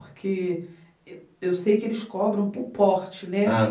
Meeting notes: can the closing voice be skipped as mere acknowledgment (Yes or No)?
No